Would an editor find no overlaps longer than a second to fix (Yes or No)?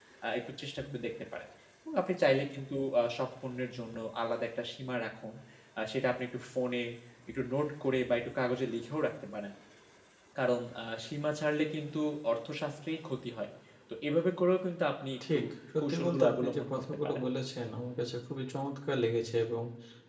No